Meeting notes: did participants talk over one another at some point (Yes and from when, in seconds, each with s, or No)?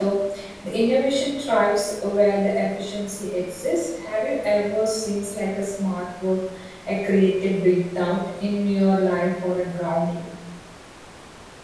No